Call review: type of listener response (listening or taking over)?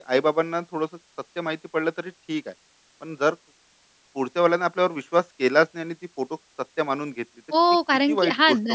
taking over